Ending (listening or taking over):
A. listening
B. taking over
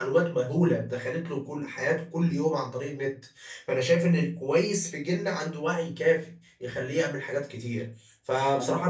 A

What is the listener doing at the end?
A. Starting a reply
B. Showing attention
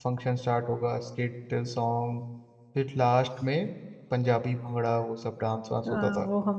A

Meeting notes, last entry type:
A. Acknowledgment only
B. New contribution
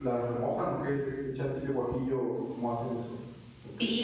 B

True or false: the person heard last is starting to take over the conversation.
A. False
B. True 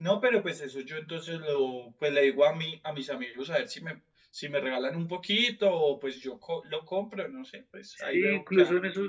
B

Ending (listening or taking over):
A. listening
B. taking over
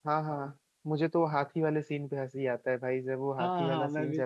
B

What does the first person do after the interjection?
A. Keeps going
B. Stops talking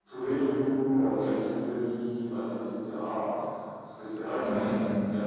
A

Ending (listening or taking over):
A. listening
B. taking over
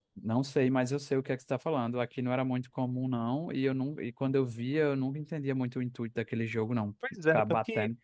B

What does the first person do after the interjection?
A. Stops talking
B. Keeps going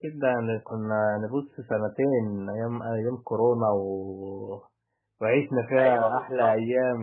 B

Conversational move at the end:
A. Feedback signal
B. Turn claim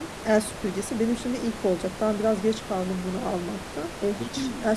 A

